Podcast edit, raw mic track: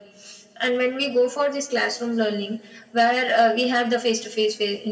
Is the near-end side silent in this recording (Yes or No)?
Yes